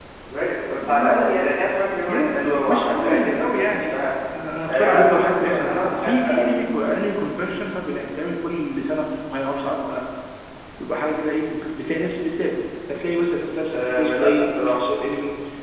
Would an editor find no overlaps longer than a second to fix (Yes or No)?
No